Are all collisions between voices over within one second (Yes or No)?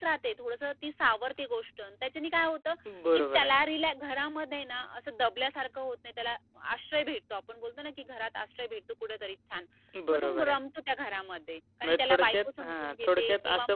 No